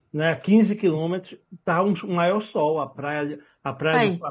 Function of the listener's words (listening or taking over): listening